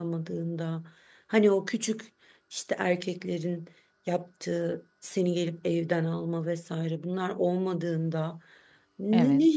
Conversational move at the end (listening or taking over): listening